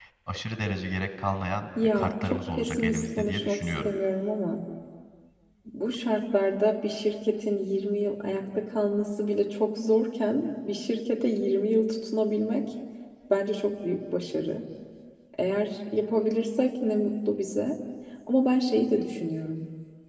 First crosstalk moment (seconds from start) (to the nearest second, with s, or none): 2 s